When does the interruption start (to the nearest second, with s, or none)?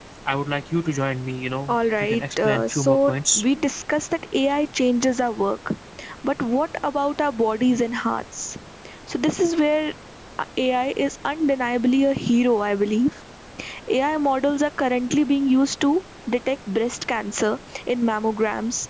2 s